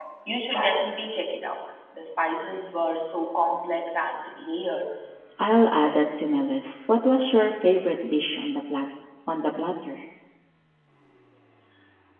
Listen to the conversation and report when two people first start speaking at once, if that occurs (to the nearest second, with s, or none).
none